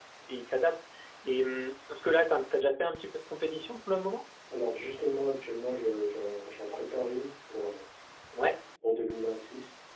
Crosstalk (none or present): none